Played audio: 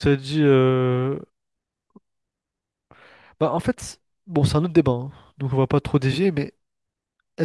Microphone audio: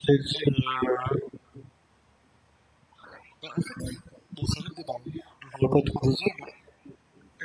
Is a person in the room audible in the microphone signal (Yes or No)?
No